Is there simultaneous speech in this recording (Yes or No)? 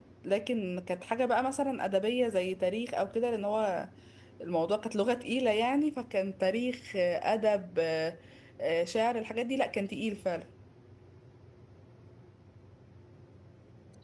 No